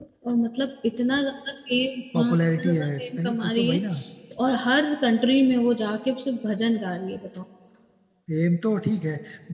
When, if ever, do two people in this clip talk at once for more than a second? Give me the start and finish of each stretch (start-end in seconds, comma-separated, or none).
2.2-3.8